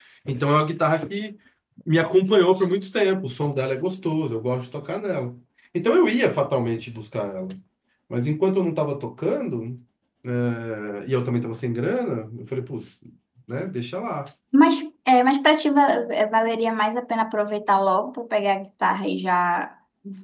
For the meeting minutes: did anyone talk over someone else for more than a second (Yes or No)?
No